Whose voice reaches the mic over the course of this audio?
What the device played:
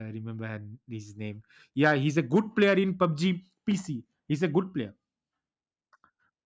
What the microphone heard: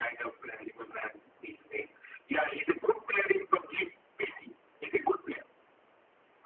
echo only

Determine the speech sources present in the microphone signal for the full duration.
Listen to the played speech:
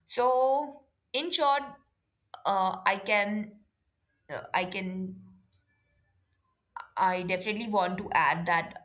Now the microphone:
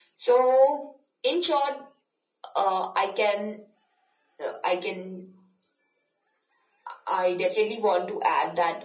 echo only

